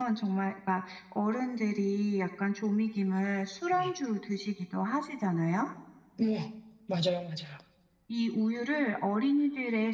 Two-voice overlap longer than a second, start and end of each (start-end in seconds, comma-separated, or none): none